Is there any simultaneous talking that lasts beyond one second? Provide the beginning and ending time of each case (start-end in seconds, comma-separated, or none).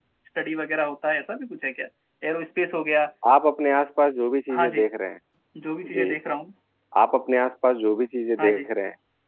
none